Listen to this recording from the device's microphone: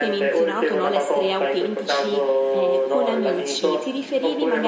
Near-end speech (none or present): present